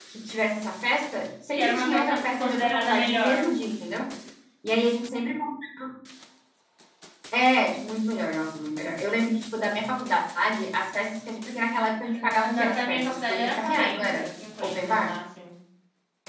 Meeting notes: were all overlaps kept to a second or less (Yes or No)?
No